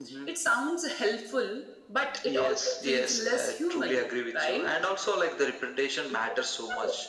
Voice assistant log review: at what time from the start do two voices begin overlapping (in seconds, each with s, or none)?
2.2 s